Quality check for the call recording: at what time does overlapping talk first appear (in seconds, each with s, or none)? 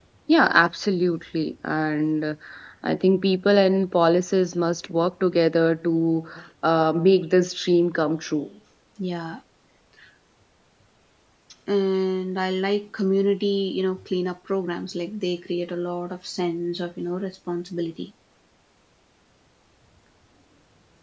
none